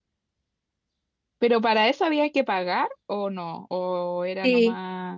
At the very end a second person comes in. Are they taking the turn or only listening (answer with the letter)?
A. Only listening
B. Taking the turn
B